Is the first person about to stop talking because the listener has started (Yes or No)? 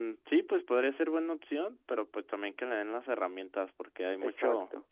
No